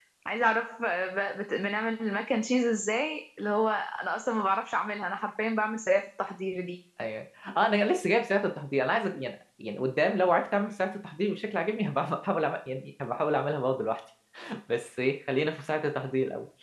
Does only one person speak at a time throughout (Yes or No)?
Yes